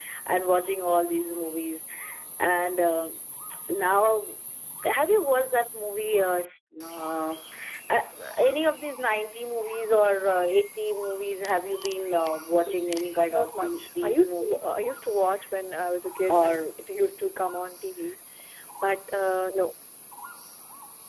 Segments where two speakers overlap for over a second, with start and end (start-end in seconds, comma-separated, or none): 13.3-14.6